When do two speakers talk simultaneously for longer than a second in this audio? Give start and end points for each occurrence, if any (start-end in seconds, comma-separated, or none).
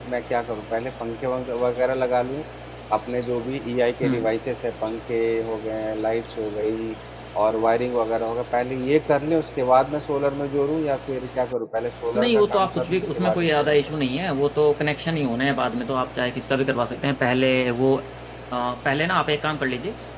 12.2-13.8